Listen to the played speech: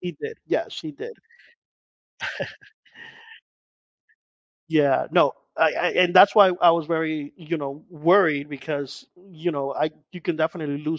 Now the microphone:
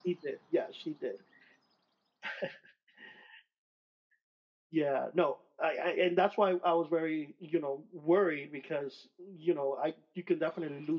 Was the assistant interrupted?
No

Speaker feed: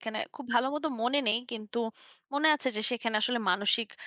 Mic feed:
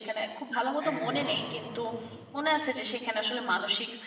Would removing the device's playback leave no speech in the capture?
No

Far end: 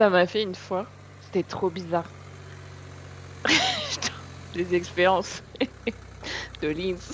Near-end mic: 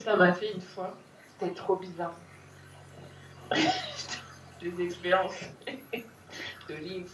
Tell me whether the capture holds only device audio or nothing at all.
Yes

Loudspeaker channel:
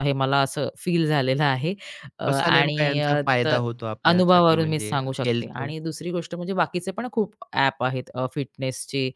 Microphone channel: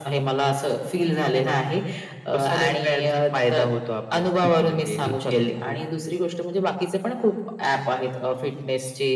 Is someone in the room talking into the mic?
Yes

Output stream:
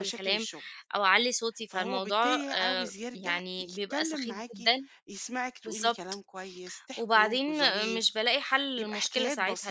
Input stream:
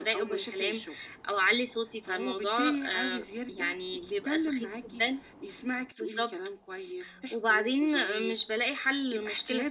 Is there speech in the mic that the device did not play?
No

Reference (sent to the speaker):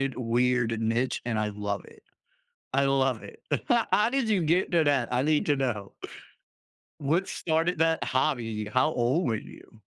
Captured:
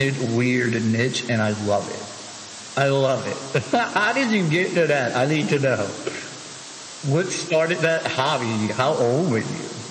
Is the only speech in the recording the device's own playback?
Yes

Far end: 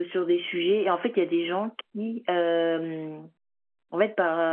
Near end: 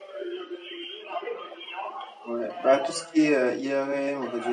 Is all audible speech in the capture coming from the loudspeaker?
No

